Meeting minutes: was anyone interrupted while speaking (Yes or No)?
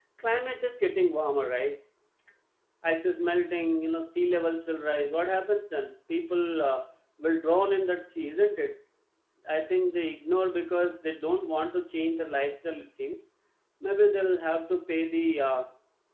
No